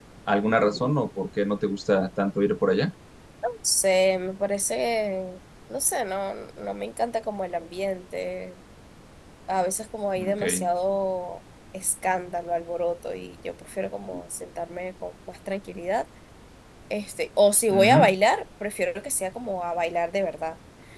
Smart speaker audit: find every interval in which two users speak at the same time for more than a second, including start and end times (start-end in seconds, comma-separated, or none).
none